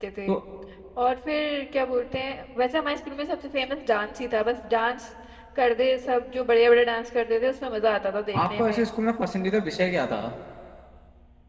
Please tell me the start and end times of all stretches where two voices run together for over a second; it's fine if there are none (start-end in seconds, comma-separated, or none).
none